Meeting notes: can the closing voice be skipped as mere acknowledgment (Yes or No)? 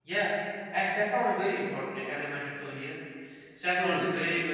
Yes